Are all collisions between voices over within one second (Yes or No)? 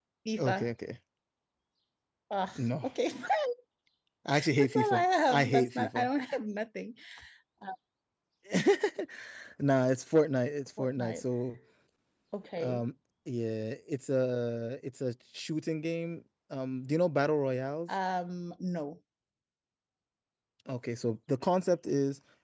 No